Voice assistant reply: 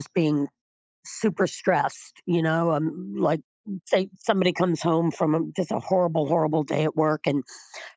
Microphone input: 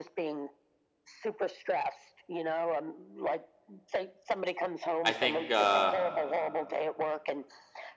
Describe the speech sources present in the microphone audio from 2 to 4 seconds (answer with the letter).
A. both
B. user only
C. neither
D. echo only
D